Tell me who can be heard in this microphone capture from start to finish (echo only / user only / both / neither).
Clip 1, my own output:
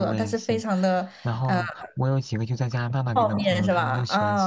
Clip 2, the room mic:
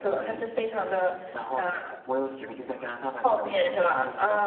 echo only